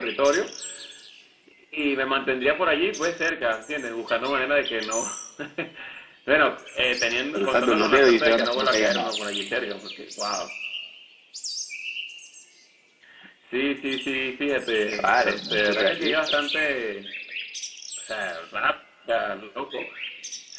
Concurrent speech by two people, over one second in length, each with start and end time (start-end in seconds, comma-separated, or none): 7.3-9.1, 14.9-16.1